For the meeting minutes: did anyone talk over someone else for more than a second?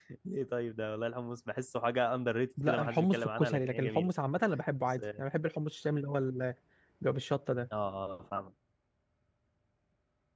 Yes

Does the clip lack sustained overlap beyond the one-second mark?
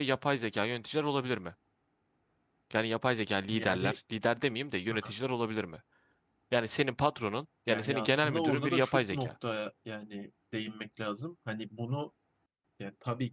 No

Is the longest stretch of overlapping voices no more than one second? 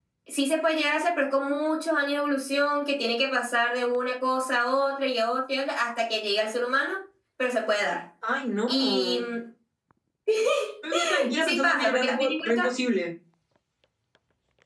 No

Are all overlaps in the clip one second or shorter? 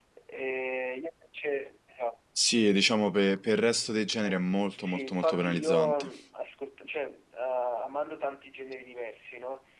No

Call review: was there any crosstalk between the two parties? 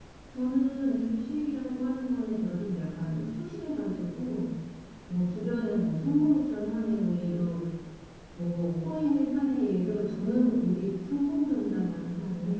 No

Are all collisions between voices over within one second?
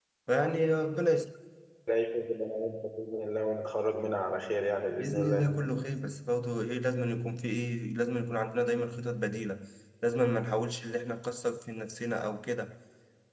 Yes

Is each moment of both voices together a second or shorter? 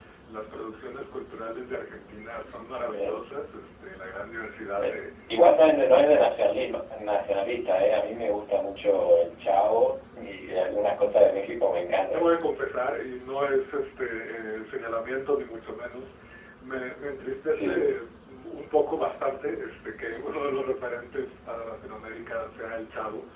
Yes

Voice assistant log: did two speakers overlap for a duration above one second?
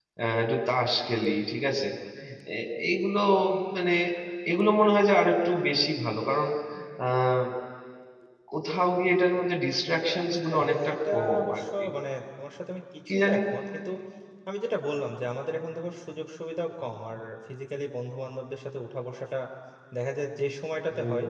Yes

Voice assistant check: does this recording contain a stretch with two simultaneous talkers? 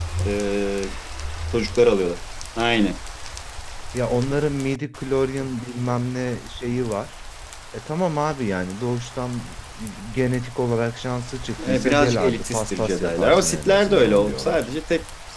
Yes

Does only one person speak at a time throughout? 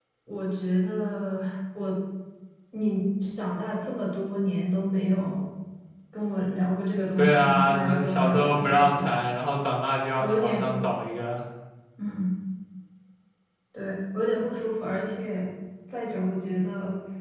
No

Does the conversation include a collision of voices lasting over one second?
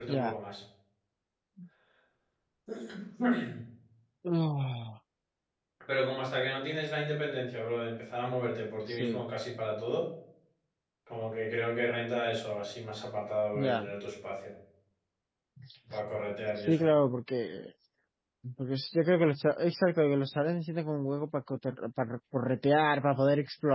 No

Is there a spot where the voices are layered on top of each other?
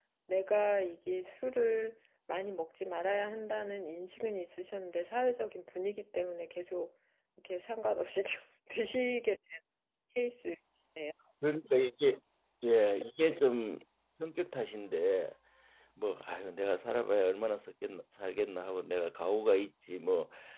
No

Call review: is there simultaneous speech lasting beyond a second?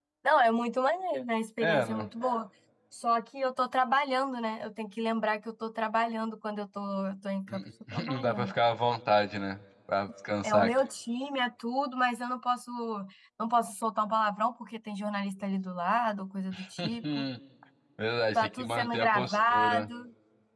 Yes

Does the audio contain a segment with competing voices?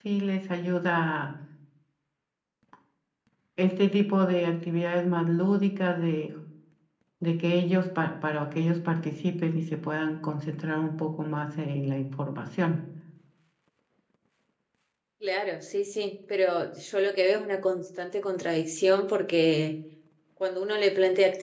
No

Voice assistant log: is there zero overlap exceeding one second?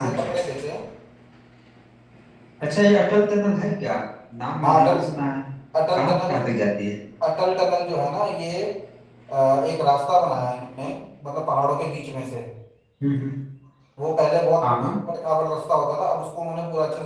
Yes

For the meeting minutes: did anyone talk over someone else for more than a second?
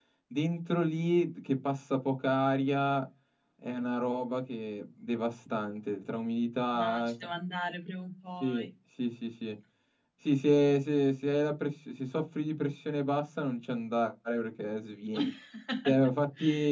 No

